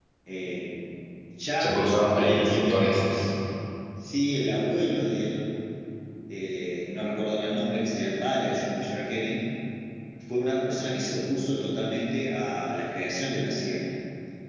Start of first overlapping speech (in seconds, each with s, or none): 1.6 s